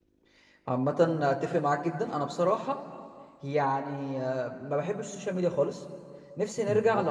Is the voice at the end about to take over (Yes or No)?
No